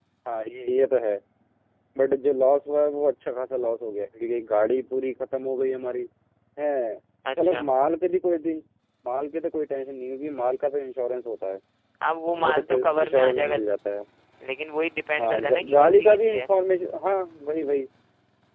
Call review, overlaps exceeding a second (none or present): present